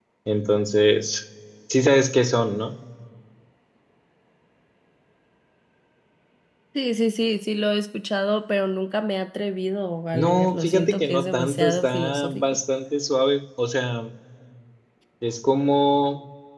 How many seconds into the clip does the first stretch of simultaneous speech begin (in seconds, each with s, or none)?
10.1 s